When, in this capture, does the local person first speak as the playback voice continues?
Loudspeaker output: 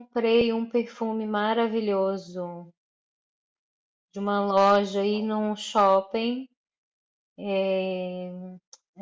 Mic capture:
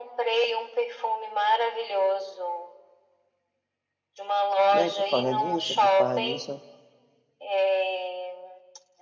5 s

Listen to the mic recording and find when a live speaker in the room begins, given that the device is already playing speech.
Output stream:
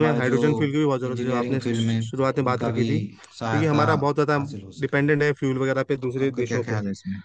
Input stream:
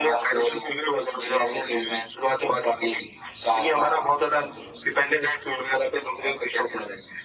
none

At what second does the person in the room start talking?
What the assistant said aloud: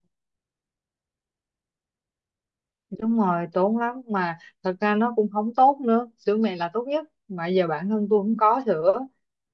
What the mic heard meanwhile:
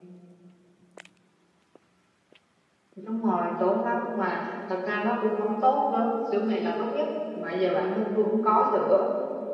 none

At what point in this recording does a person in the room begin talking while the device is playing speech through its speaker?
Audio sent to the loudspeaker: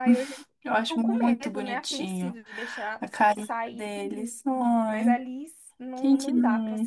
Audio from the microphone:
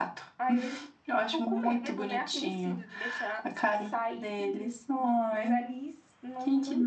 none

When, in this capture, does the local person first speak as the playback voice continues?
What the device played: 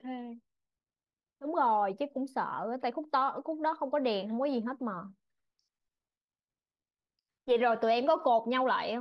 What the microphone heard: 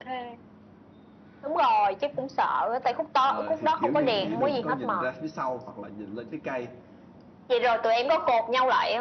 3 s

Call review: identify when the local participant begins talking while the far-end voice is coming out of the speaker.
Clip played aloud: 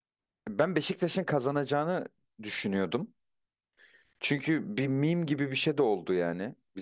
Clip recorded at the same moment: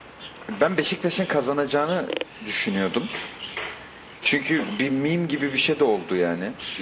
none

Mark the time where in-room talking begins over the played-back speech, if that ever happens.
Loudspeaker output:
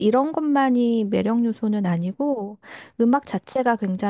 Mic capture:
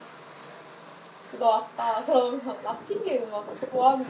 1 s

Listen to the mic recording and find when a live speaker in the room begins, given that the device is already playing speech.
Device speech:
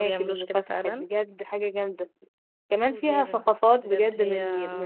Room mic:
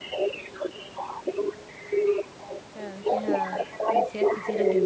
3 s

